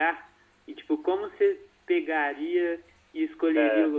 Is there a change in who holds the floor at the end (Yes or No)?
No